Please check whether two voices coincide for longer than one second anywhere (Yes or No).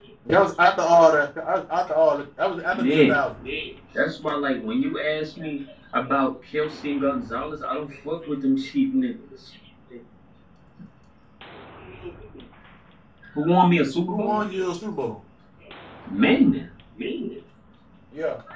No